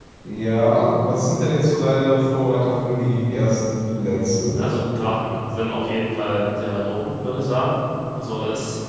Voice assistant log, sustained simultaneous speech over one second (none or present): none